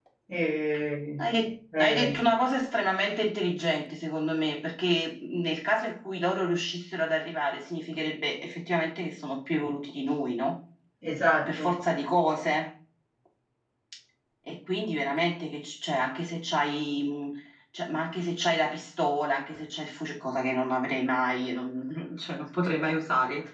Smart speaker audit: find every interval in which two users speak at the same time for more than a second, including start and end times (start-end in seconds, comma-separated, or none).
none